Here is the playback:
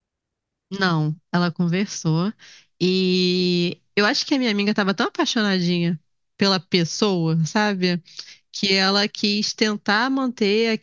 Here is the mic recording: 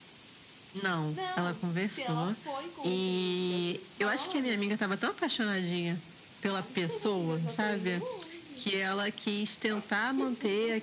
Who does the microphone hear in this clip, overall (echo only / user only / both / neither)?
both